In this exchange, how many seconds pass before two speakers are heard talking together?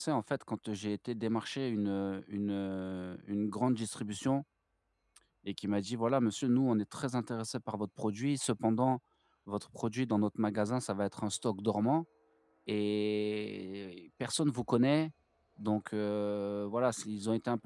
none

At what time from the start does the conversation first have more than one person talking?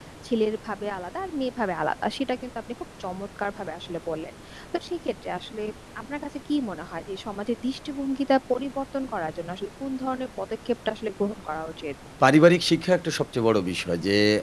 none

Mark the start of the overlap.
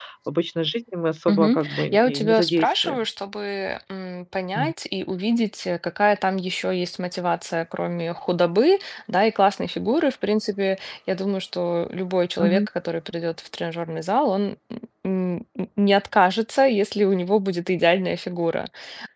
1.3 s

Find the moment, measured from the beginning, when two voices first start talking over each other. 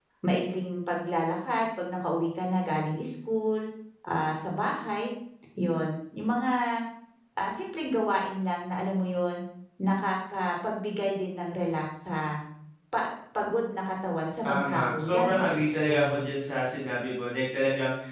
14.4 s

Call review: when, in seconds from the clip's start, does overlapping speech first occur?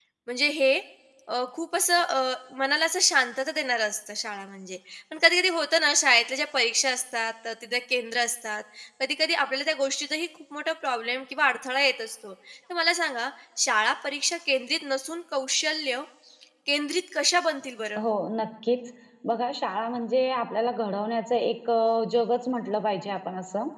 none

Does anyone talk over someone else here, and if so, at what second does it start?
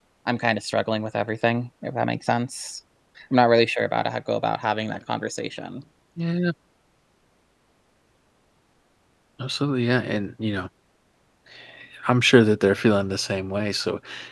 none

